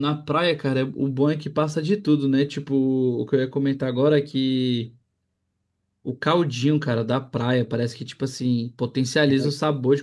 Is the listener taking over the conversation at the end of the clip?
No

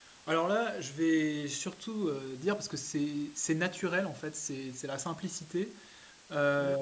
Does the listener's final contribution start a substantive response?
No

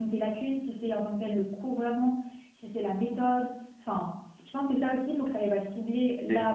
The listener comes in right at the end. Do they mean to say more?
No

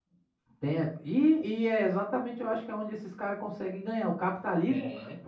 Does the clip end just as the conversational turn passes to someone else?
No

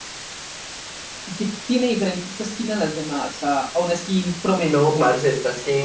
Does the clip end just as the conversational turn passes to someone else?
Yes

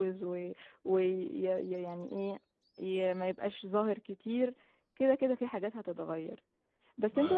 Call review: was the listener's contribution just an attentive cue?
Yes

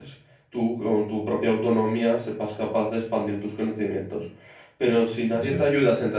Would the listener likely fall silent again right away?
Yes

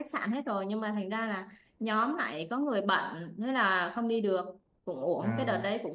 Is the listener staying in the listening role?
Yes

